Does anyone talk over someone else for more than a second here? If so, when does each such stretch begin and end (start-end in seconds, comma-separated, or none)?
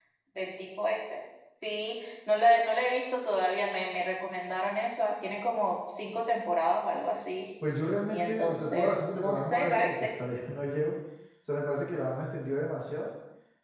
8.1-10.1